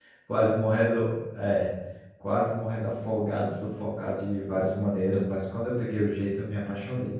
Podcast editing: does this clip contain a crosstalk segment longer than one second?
No

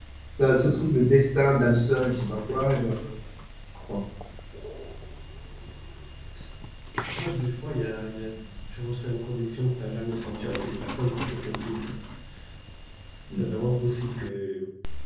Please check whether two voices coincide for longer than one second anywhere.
No

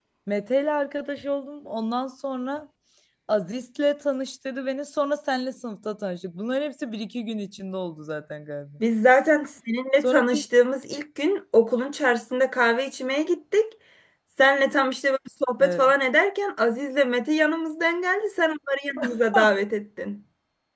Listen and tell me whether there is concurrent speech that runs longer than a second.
No

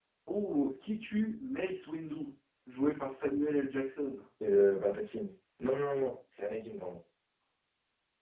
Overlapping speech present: No

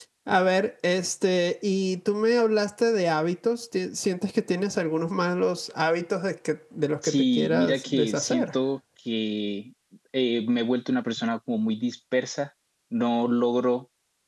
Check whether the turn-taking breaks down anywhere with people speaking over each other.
Yes, from 7.0 s

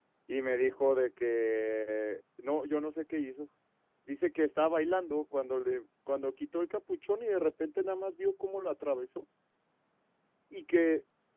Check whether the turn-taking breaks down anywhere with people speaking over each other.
No

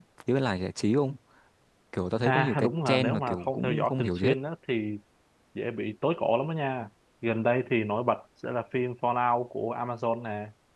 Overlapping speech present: Yes, from 2.2 s

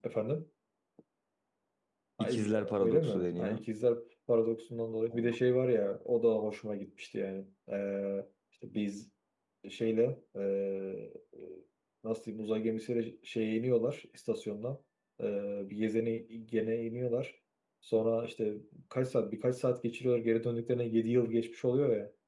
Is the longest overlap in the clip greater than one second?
Yes, from 2.2 s

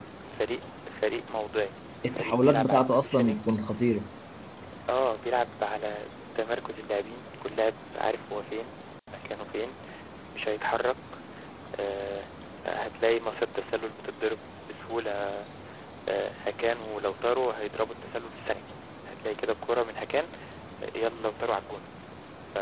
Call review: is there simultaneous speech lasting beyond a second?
Yes, from 2.0 s

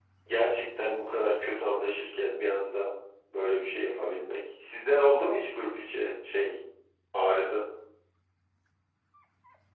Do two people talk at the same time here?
No

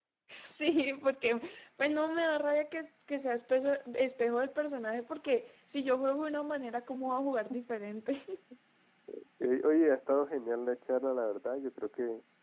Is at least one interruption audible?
No

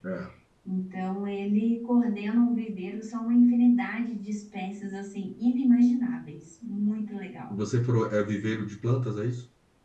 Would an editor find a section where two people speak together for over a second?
No

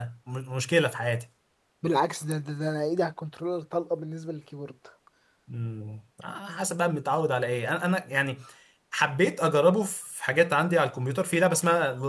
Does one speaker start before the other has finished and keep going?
No

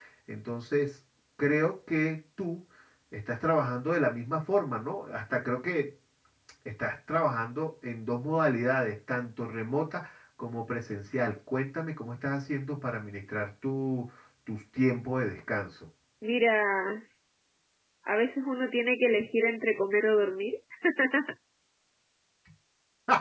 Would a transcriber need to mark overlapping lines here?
No

